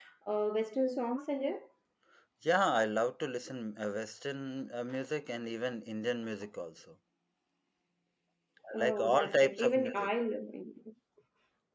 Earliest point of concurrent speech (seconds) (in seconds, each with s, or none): 8.7 s